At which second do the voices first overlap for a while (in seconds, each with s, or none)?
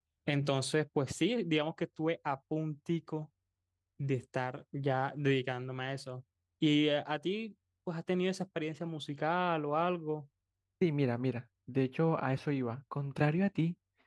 none